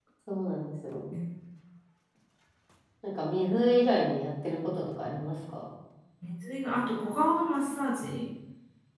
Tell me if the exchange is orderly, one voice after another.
Yes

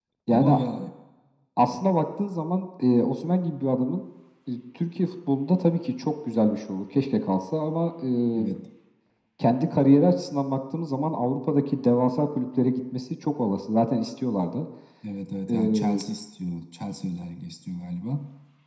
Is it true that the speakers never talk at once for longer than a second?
Yes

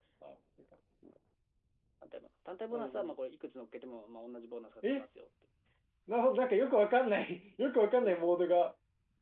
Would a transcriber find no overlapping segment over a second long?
Yes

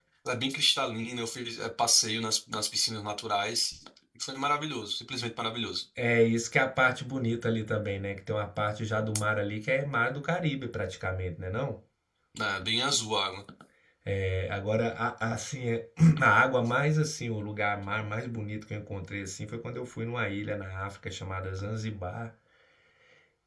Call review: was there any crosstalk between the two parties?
No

